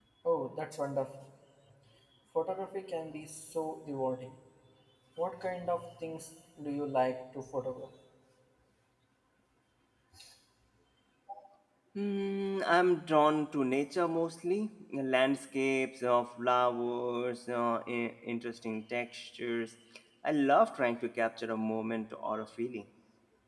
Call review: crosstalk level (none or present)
none